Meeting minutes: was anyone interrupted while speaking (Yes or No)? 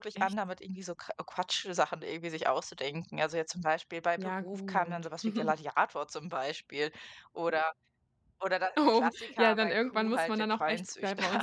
Yes